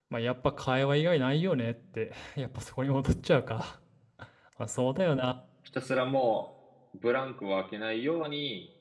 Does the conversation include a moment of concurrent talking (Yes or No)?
No